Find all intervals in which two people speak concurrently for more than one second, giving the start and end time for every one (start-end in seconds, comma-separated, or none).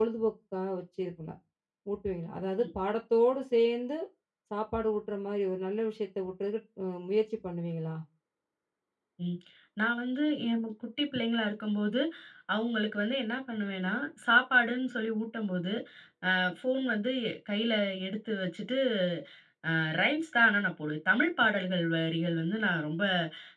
none